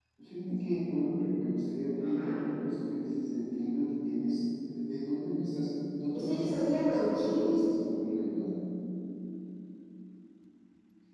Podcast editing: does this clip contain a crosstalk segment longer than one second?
Yes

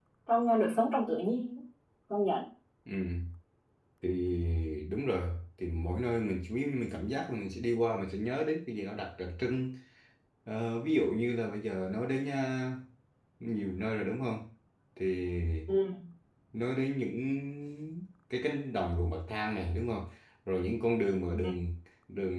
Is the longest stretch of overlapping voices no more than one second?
Yes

